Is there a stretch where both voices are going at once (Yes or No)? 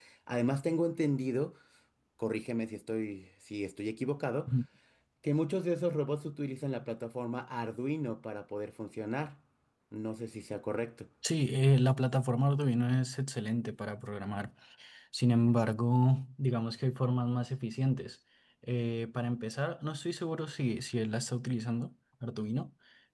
No